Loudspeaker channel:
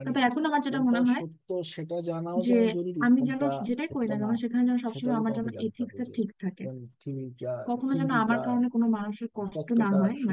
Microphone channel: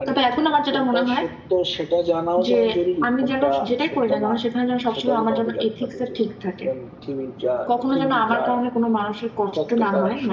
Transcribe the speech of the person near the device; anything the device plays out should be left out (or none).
none